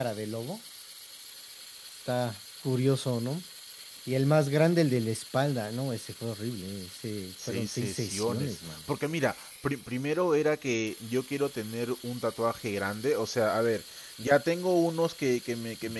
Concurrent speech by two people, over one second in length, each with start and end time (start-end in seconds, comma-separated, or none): 7.5-8.8